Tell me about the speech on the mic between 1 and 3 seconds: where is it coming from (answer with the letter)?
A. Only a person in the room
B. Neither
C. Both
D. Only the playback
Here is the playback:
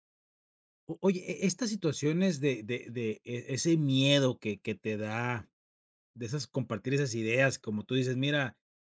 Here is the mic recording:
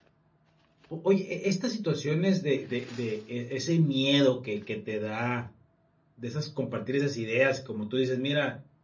D